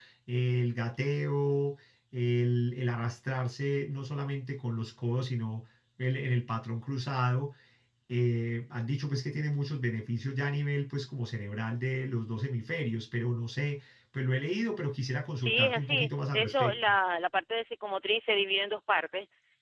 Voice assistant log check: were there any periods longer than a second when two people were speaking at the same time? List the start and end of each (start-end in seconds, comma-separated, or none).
15.4-16.8